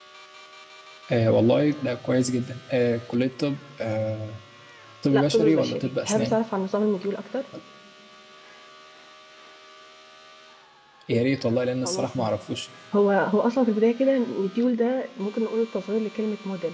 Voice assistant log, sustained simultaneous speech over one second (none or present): present